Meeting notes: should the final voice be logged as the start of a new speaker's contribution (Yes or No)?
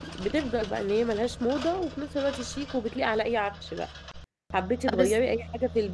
No